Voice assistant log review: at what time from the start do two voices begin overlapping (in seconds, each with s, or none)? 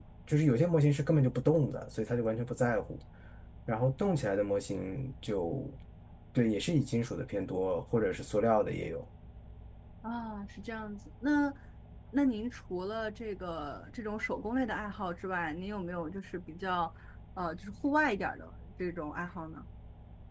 none